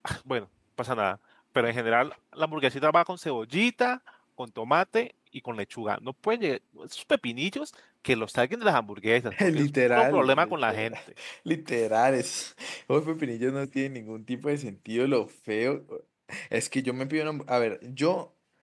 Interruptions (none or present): present